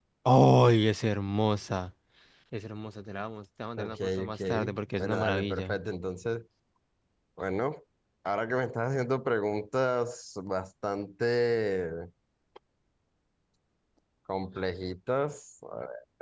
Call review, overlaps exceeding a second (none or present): present